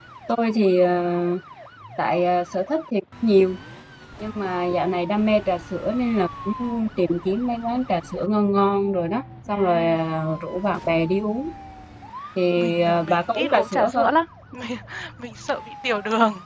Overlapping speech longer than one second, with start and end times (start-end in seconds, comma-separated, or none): 12.6-14.1